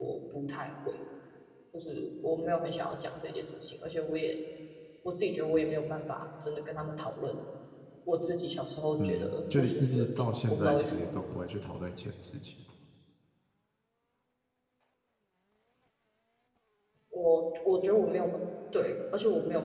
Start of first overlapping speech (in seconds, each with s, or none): 9.0 s